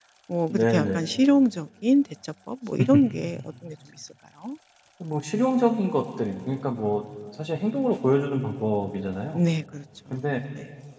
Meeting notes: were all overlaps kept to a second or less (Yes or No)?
Yes